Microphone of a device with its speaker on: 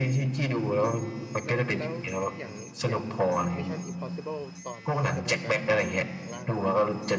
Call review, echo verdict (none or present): present